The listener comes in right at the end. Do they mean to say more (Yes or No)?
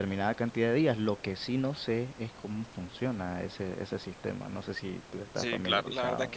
Yes